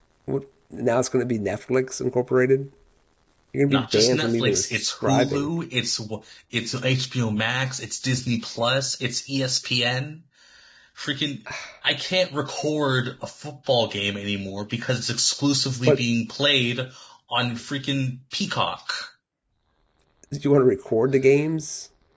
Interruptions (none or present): present